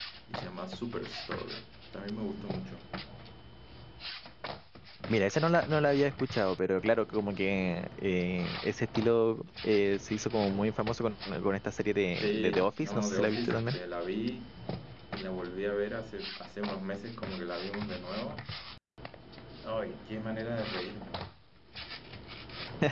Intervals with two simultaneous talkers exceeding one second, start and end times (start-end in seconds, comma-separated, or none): 12.2-13.8